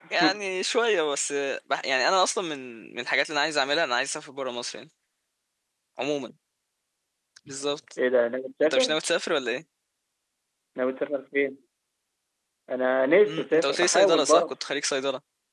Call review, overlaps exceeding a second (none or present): present